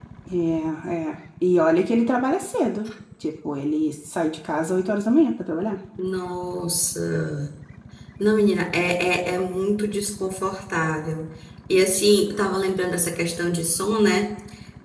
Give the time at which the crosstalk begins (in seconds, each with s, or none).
none